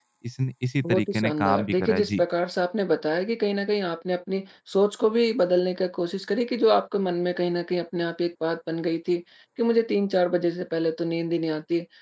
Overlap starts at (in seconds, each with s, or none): 0.8 s